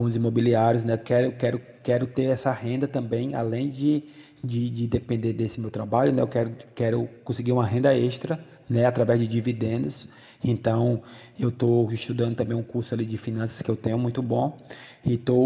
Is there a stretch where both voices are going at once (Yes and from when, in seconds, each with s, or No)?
No